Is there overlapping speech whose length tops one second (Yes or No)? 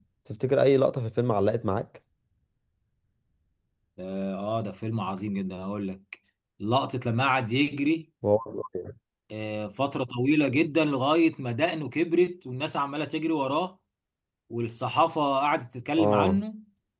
No